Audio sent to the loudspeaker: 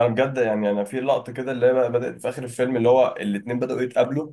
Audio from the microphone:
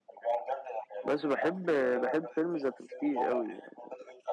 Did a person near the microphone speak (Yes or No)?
Yes